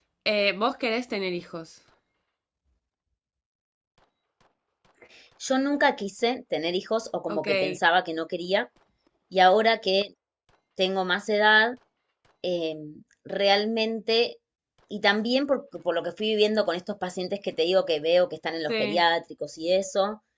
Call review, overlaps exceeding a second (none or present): none